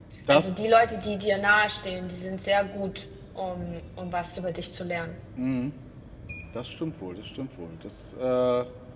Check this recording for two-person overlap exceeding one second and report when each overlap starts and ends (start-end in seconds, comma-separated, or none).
none